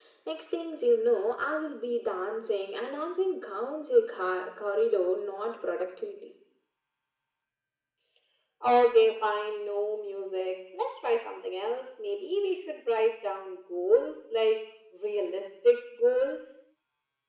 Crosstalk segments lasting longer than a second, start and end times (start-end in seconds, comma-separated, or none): none